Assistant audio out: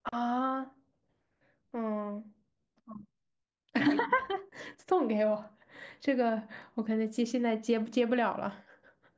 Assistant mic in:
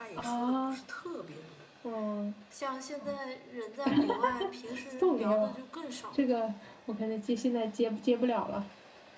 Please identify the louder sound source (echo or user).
echo